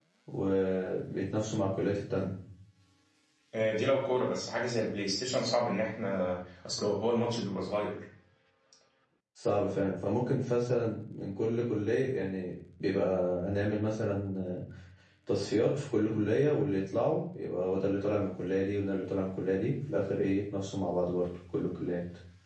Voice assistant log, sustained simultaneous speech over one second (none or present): none